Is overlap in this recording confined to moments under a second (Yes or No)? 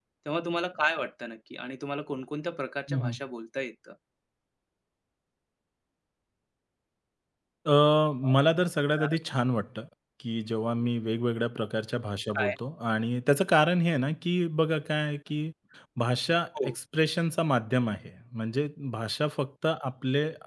Yes